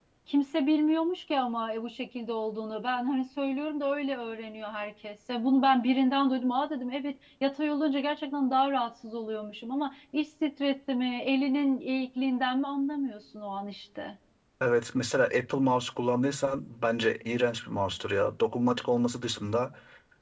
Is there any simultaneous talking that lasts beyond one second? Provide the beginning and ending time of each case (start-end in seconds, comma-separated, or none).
none